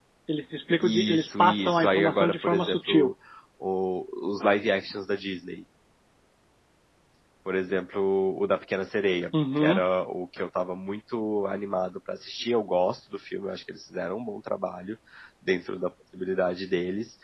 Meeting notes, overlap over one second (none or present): present